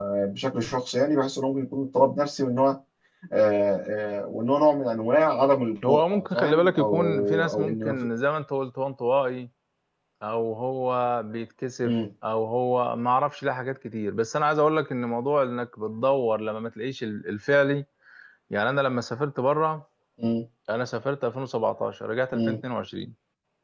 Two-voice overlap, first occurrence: 5.9 s

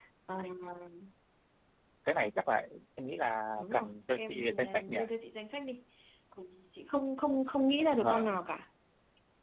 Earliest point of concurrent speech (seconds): 3.6 s

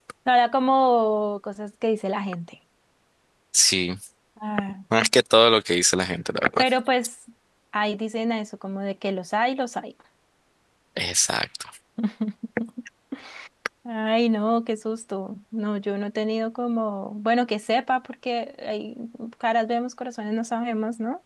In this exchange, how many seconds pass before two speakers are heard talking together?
none

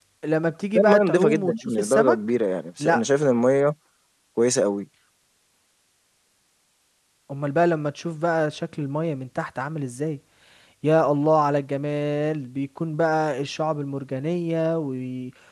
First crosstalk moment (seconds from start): 0.8 s

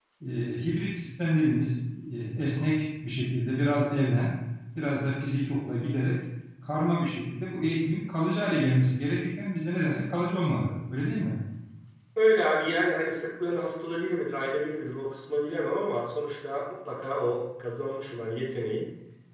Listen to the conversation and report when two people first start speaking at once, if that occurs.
none

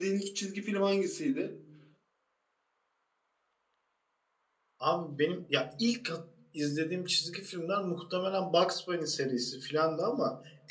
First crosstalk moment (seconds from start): none

